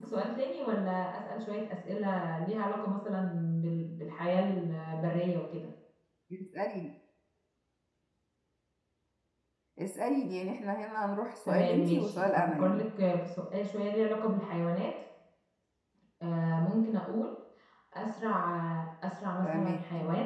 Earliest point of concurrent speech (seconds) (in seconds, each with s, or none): 11.4 s